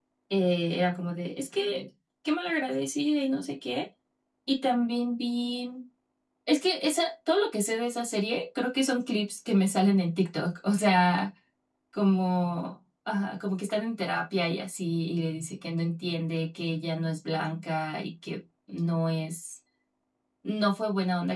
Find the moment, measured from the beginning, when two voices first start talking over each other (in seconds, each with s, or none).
none